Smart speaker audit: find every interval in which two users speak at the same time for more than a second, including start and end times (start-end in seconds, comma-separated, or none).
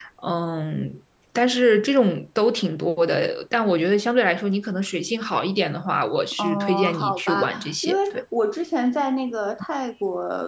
6.4-8.2